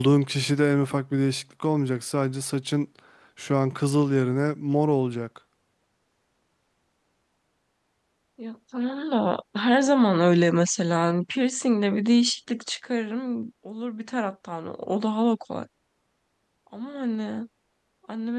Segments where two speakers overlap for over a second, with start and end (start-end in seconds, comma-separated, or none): none